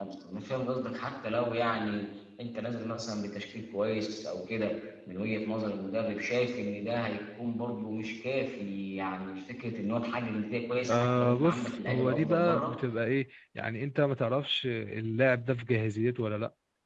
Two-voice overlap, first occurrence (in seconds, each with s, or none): 10.8 s